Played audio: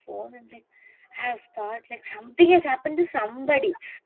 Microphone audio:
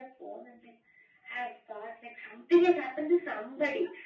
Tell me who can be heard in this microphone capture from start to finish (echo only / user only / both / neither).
echo only